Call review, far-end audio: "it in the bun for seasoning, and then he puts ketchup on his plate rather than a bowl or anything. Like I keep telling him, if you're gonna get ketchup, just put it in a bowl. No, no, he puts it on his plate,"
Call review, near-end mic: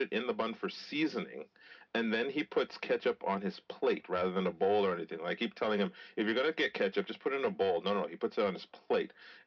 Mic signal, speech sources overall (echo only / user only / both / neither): echo only